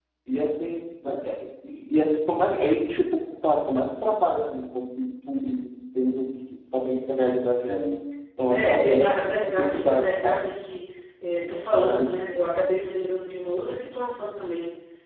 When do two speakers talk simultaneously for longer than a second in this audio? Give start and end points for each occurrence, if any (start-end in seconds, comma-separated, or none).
8.5-10.4